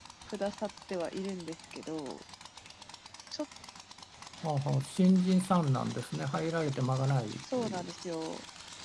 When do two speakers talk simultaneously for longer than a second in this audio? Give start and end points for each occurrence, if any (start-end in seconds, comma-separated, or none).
none